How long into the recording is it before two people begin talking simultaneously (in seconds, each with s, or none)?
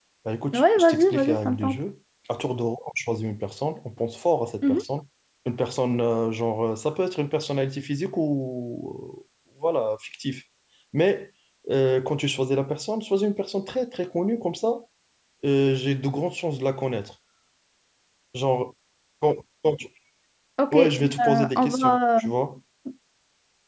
0.5 s